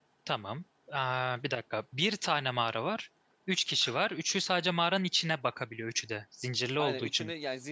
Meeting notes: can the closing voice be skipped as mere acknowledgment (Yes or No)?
No